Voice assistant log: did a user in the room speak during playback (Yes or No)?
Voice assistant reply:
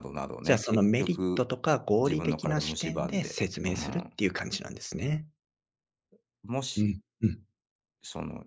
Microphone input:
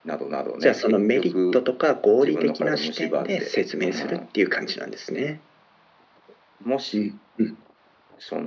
No